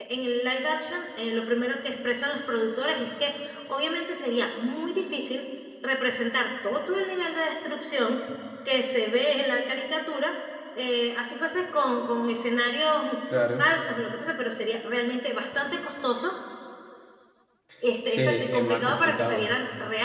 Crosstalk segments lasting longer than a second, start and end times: 18.0-19.5

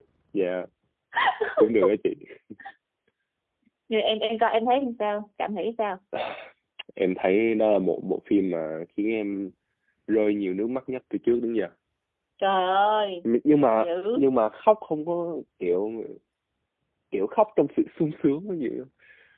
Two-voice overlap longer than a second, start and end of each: none

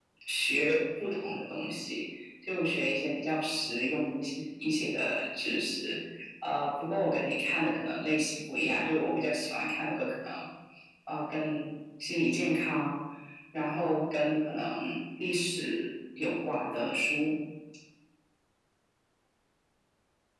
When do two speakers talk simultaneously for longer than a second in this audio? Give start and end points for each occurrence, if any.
none

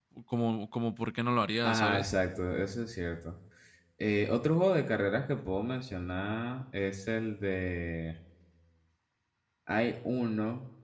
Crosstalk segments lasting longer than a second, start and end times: none

